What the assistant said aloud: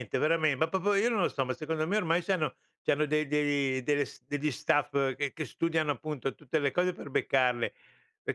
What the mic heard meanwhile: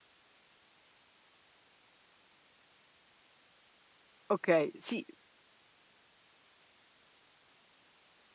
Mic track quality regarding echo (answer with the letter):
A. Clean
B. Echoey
A